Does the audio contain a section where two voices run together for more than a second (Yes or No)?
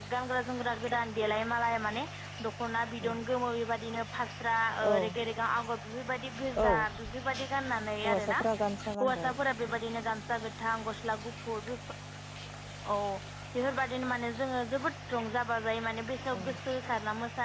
No